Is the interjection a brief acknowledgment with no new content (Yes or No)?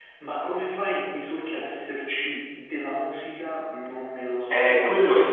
No